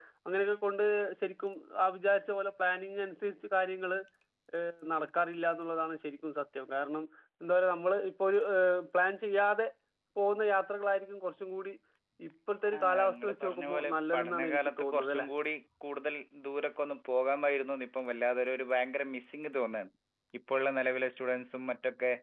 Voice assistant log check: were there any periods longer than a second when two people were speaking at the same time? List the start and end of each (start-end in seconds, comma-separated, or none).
12.8-15.3